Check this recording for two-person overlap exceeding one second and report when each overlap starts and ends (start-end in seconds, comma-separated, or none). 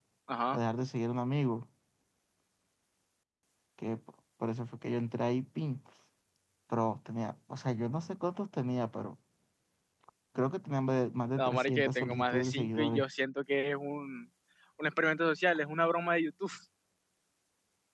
11.4-13.0